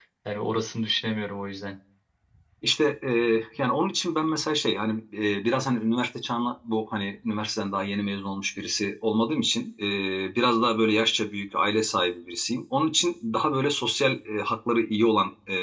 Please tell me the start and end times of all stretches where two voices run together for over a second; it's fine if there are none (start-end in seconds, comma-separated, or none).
none